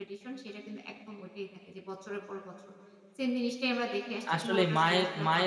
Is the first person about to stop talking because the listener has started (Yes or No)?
Yes